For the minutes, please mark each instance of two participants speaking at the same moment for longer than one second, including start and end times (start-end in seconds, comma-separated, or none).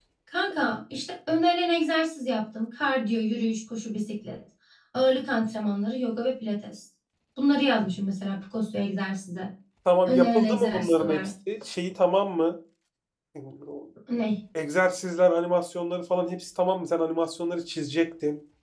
10.1-11.3